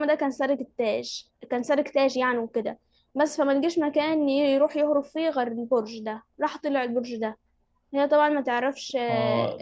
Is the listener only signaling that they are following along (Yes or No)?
No